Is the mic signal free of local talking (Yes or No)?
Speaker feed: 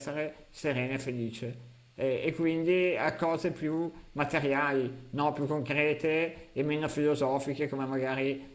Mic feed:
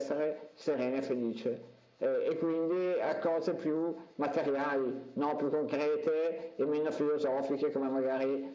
Yes